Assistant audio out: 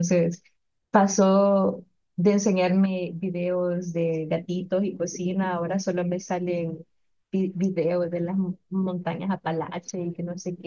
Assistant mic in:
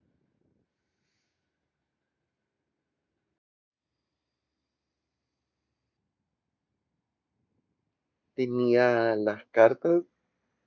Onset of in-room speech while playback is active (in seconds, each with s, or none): 8.3 s